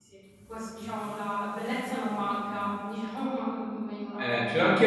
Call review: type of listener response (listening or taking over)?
taking over